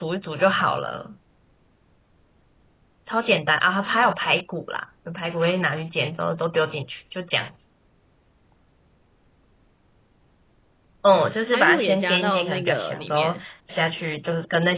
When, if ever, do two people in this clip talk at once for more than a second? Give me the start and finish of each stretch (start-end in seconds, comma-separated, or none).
11.5-13.4